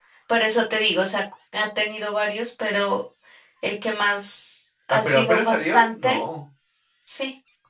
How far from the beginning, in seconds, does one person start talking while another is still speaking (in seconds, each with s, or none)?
4.9 s